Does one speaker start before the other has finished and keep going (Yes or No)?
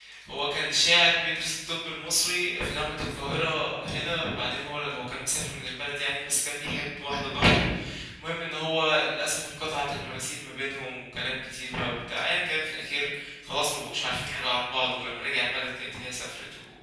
No